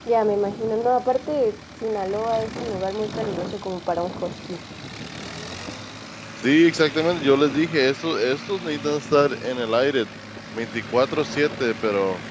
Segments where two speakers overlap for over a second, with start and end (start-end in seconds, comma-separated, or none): none